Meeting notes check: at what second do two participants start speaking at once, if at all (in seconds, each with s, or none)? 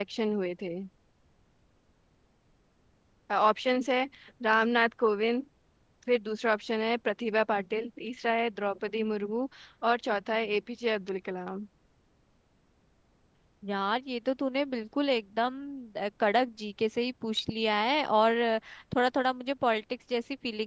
none